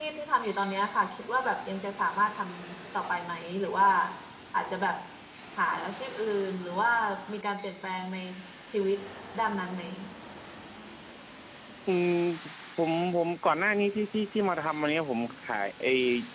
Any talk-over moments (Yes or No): No